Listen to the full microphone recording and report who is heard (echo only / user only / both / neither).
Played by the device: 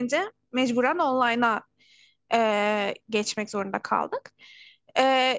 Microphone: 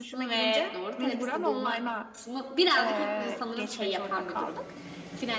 both